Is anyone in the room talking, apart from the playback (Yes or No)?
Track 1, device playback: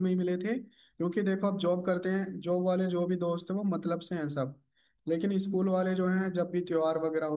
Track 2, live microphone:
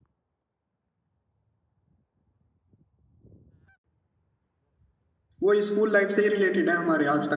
Yes